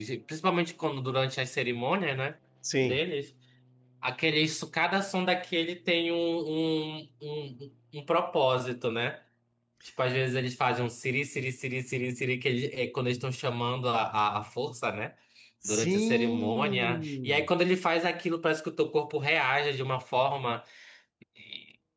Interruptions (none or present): present